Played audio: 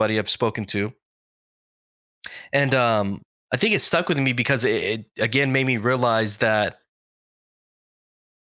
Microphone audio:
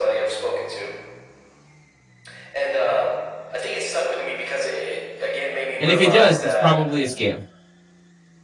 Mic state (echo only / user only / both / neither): both